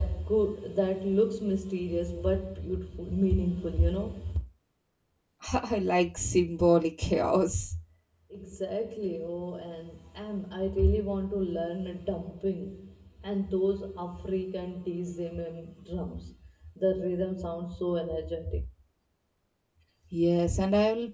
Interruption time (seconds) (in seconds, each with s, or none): none